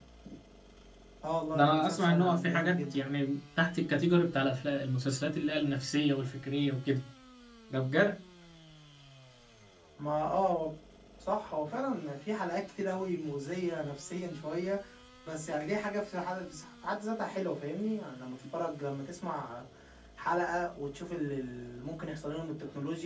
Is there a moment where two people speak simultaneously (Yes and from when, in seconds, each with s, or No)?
Yes, from 1.5 s